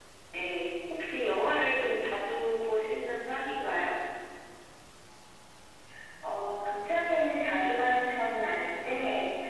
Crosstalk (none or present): none